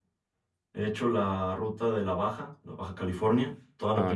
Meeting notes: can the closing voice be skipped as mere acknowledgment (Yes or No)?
Yes